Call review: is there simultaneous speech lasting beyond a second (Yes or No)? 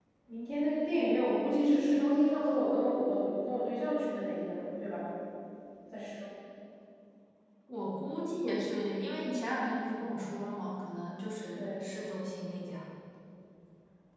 No